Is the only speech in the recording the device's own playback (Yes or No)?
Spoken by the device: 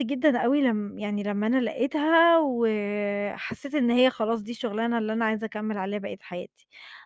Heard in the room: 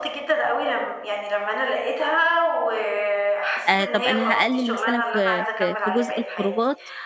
No